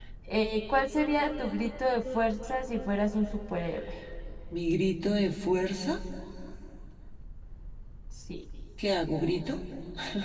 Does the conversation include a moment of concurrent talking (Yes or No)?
No